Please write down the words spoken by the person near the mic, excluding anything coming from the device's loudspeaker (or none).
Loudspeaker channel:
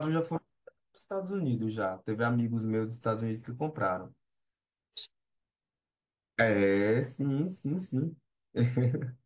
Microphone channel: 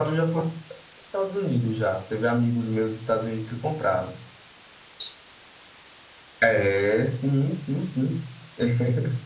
none